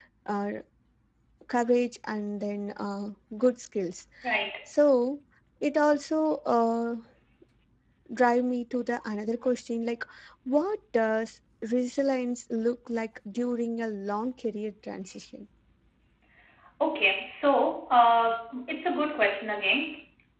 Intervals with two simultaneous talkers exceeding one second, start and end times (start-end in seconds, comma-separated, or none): none